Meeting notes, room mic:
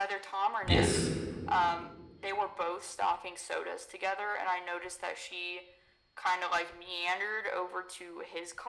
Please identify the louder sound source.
user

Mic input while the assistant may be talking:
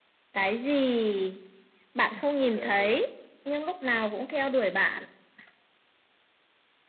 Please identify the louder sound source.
echo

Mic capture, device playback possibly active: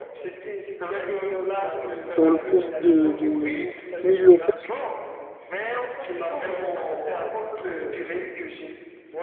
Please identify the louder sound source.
user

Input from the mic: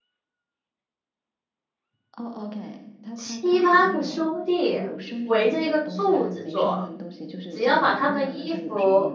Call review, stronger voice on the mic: user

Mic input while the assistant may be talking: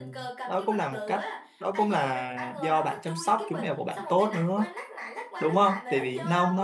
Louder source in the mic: user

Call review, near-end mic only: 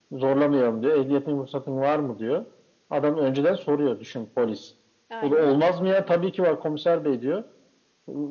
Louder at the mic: echo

